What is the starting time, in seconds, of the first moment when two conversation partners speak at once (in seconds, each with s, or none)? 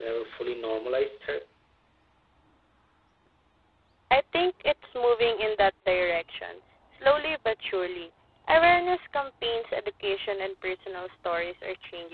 none